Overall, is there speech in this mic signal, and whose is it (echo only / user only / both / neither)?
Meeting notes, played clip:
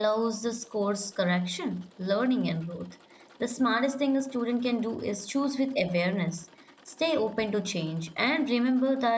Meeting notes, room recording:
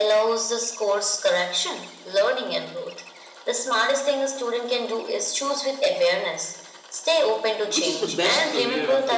both